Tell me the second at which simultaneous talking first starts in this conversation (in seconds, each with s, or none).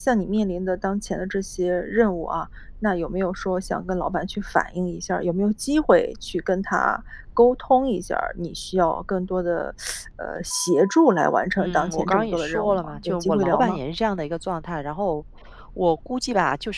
11.6 s